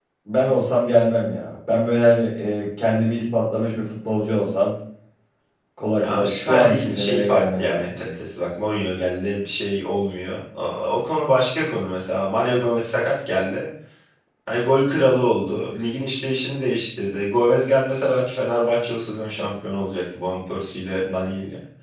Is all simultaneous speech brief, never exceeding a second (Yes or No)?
No